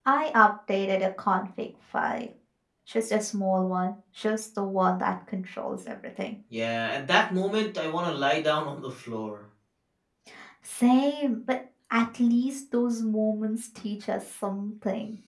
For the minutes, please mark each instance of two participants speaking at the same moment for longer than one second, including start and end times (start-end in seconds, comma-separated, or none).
none